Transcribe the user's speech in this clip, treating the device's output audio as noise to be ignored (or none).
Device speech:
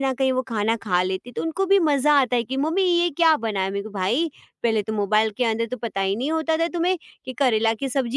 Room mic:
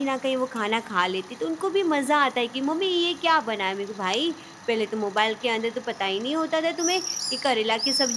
none